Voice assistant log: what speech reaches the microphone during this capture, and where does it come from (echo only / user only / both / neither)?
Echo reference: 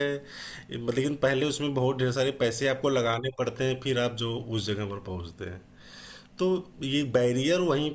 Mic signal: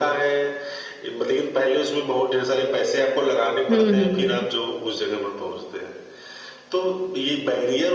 both